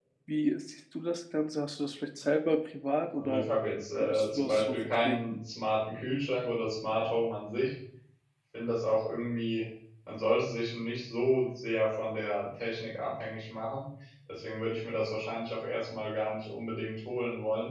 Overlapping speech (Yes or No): Yes